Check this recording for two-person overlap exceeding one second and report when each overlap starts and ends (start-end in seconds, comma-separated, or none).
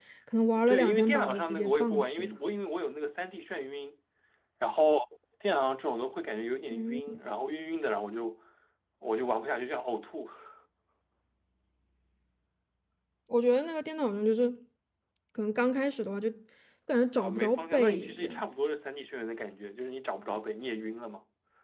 0.7-2.4, 17.2-18.4